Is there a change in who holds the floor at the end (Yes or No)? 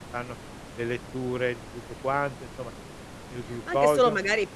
Yes